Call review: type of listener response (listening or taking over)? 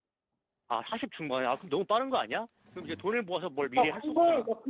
taking over